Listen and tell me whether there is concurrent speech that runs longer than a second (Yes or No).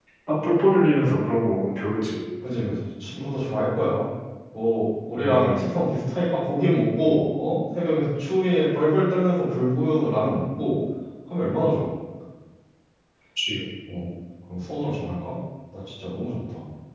No